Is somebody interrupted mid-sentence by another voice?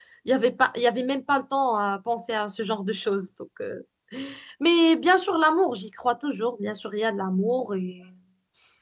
No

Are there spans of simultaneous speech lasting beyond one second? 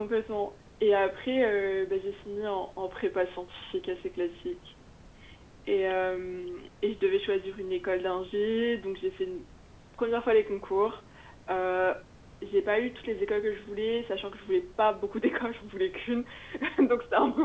No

